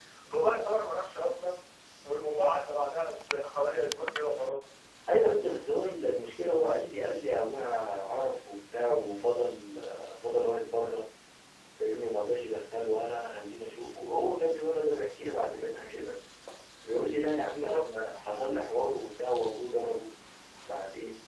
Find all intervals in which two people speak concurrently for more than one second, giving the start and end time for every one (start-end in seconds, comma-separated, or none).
none